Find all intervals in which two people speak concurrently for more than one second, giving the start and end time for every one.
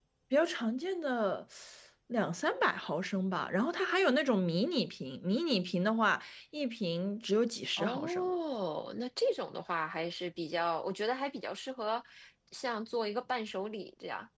none

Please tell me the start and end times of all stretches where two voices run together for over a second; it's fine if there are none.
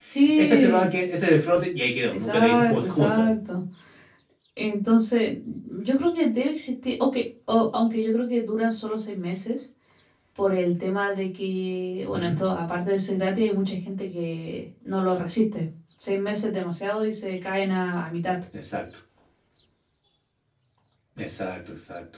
2.1-3.3

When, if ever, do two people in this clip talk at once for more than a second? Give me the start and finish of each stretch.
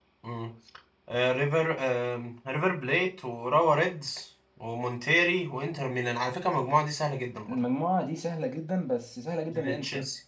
none

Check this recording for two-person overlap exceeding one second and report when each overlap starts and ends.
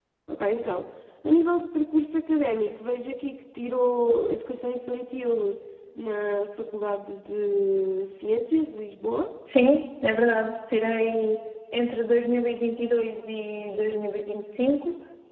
none

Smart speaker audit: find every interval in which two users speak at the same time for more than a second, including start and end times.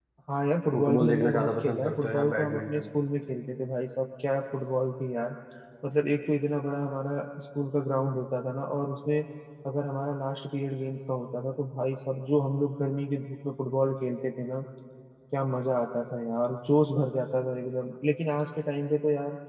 0.7-2.8

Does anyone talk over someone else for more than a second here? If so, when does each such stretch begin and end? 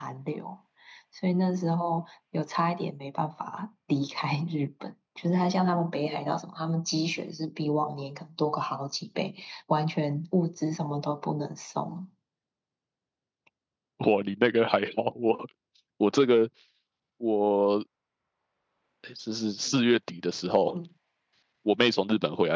none

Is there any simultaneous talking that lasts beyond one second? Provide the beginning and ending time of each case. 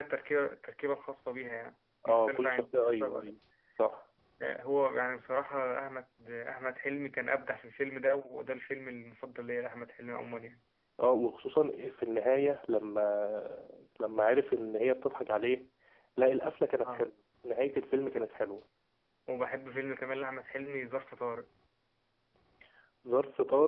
2.1-3.3

